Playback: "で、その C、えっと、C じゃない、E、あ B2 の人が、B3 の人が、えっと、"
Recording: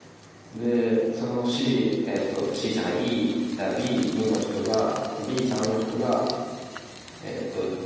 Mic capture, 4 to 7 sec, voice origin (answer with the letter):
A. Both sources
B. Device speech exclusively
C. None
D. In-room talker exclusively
B